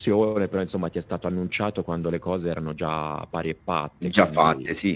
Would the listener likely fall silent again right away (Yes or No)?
No